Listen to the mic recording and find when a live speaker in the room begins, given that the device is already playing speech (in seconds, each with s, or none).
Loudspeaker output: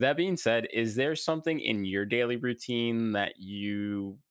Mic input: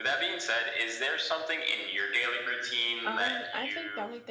3.0 s